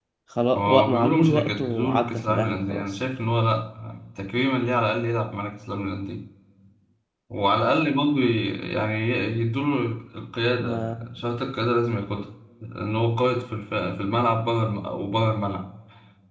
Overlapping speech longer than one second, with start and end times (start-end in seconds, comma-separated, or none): 0.6-3.0